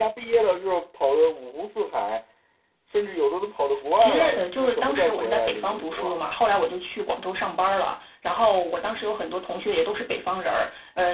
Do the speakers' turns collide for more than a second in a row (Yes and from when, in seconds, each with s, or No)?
Yes, from 4.0 s